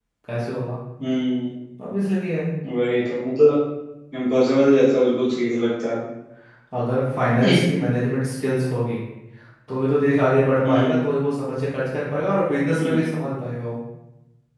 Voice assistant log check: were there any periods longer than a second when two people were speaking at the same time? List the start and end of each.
none

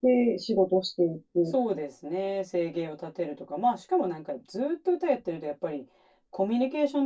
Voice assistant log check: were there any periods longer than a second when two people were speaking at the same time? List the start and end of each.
none

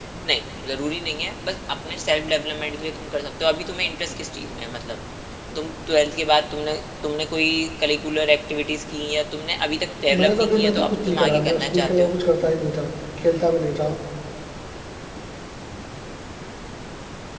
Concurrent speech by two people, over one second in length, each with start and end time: 10.1-12.1

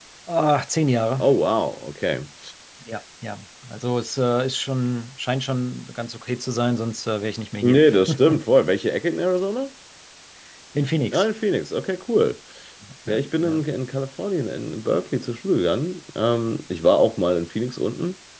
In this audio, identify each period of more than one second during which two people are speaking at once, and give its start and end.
none

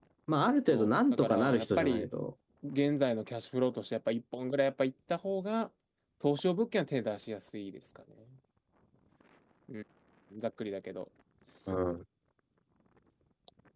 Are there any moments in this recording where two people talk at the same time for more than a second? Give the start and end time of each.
0.7-2.1

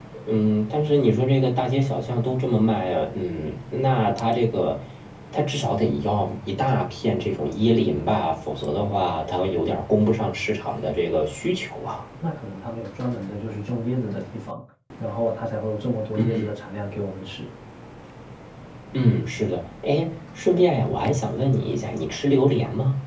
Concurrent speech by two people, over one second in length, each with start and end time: none

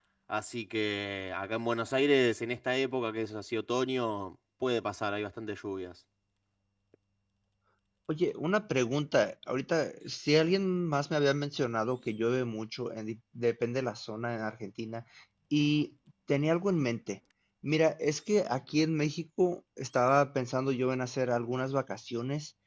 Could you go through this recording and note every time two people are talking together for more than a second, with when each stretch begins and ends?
none

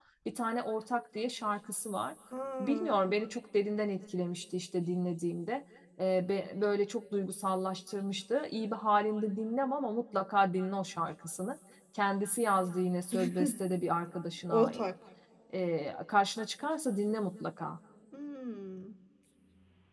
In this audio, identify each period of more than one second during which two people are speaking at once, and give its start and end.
none

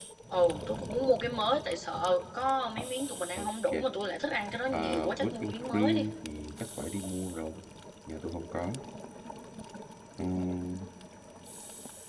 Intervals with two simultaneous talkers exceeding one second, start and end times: 4.7-6.0

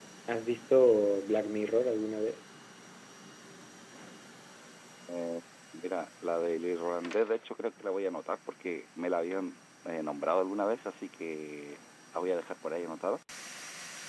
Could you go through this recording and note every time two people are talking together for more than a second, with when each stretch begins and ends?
none

